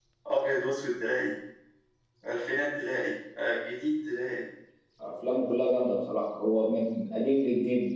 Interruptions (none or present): none